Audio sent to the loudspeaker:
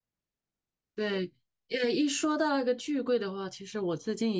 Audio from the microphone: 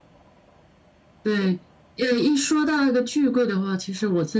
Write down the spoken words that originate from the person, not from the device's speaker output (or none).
none